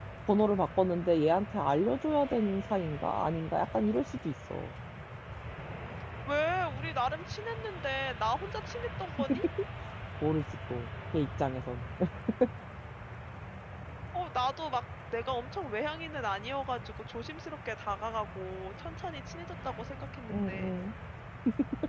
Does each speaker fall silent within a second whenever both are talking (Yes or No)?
Yes